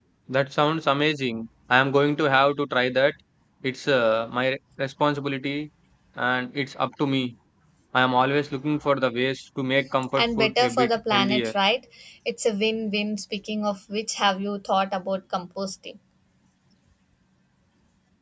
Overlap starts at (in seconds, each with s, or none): 10.2 s